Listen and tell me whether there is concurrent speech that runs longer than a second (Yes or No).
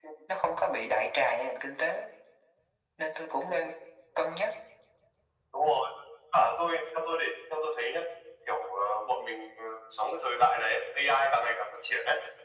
No